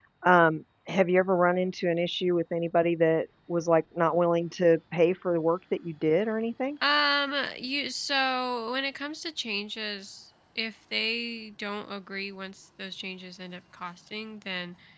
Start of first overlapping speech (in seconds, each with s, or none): none